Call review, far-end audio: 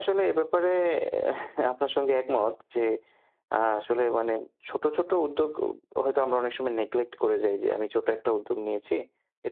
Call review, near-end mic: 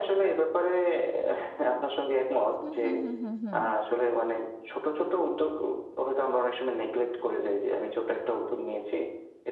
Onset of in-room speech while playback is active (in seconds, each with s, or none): 2.6 s